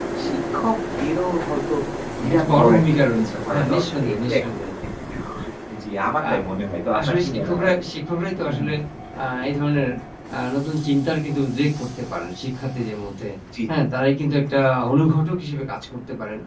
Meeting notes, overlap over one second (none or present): present